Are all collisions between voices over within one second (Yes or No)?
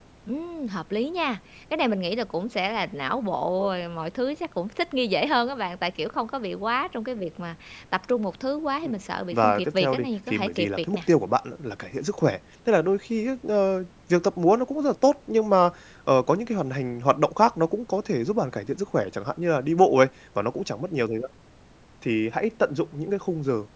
No